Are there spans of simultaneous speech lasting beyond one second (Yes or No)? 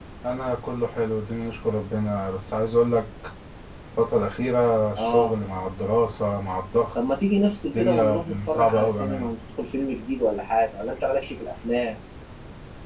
Yes